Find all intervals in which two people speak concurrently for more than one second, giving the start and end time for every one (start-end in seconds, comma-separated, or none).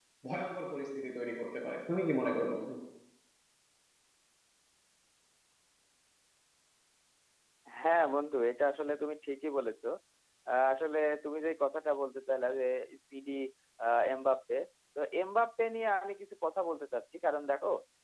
none